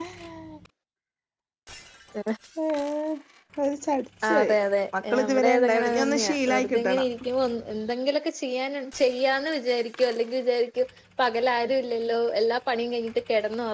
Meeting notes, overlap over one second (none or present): present